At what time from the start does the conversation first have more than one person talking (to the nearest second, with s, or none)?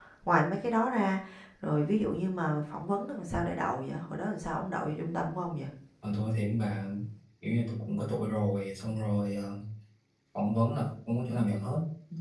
none